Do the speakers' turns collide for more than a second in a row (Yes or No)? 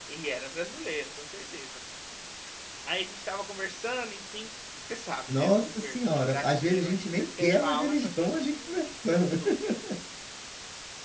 Yes